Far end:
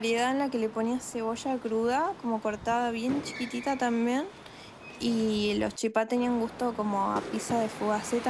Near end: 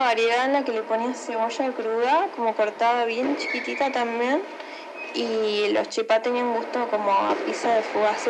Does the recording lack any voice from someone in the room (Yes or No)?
Yes